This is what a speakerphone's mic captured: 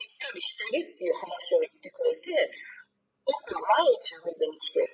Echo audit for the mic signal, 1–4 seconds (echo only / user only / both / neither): echo only